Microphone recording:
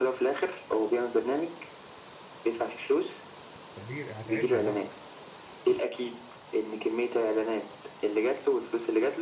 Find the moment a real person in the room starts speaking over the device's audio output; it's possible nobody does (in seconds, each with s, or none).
3.8 s